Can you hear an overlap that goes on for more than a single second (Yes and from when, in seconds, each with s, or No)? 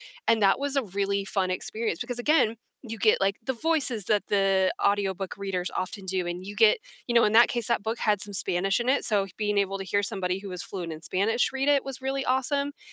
No